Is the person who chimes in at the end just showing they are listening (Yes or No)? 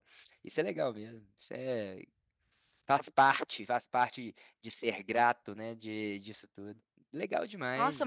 No